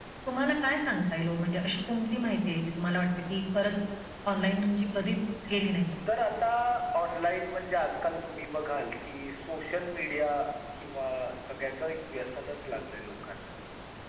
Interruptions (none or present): none